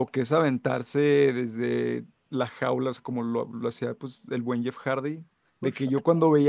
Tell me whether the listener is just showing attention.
Yes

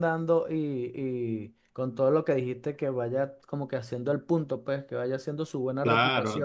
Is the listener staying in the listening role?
No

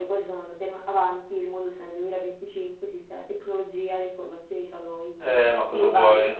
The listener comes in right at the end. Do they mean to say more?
Yes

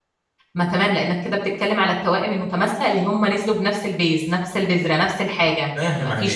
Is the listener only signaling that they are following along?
Yes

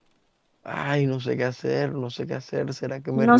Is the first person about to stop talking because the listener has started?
Yes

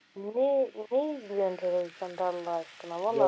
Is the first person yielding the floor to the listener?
No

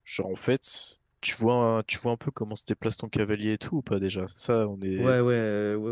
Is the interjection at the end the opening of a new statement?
Yes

